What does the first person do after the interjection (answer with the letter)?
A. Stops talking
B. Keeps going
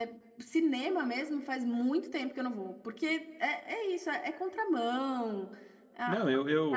A